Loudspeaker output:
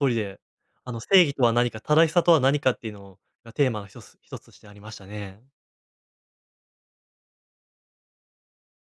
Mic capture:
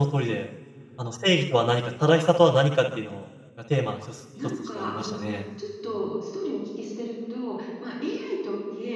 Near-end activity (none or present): present